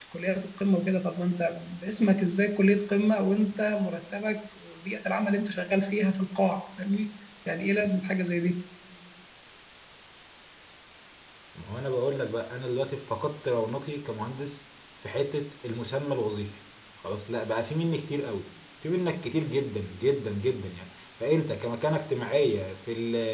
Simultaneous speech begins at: none

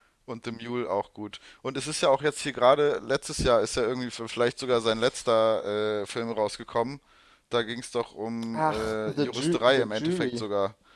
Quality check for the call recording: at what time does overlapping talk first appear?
8.5 s

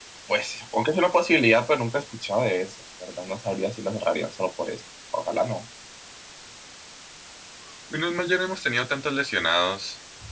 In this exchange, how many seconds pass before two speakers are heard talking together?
none

